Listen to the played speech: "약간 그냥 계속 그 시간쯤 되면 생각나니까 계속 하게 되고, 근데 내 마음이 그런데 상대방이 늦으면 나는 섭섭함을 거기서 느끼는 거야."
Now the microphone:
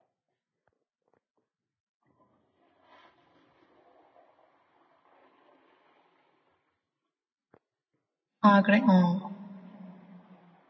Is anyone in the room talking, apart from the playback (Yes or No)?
Yes